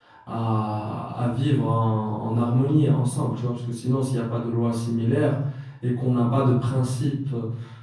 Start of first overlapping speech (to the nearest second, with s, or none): none